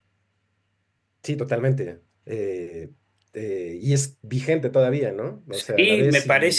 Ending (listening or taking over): taking over